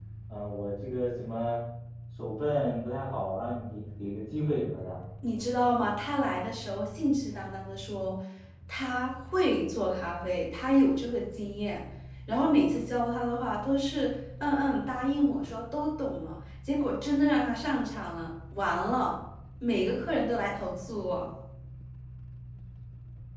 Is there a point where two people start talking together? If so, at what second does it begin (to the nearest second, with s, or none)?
none